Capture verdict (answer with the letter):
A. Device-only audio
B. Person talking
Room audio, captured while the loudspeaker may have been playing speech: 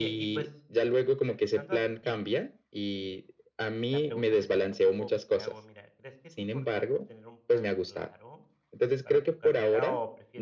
B